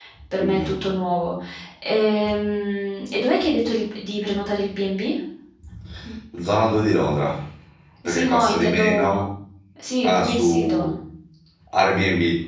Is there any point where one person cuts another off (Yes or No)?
Yes